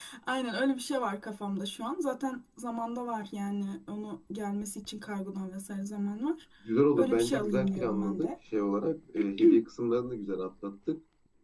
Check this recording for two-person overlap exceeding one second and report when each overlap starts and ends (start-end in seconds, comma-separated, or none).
7.0-8.3